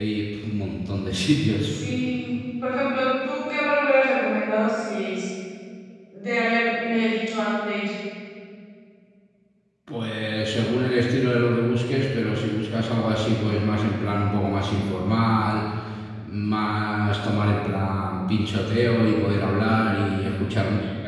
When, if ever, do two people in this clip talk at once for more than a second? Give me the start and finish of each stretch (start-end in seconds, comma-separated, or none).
none